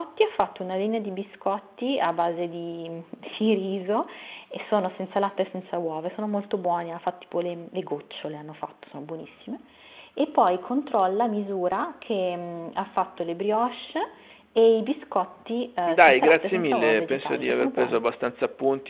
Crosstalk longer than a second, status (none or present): present